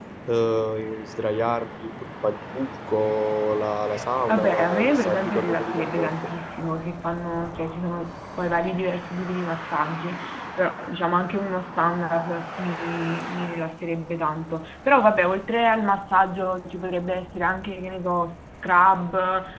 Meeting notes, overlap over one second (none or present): present